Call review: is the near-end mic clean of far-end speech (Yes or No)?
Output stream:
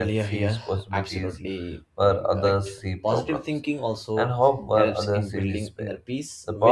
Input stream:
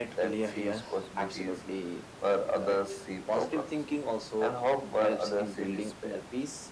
No